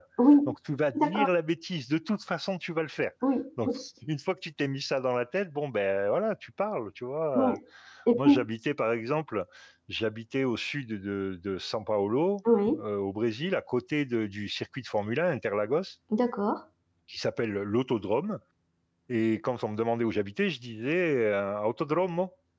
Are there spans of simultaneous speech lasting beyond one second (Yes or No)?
No